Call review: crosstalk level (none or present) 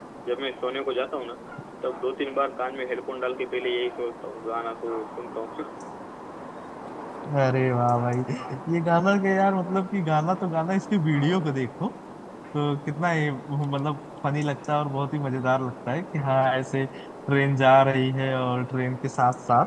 none